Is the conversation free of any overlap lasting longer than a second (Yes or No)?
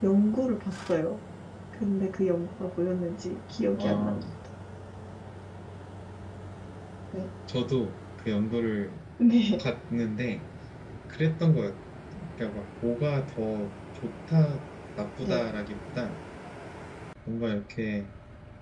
Yes